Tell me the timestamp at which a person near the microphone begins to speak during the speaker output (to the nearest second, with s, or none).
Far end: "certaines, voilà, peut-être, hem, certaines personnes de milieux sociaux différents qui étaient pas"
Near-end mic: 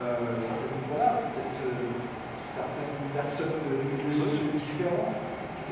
4 s